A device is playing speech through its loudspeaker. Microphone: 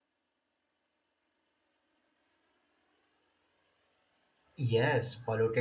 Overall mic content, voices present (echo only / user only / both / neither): user only